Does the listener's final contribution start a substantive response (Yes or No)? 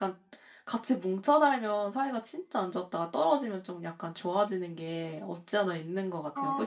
Yes